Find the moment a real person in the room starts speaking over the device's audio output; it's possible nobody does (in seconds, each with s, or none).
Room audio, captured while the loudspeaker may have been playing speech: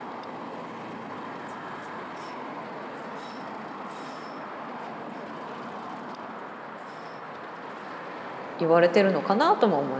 8.6 s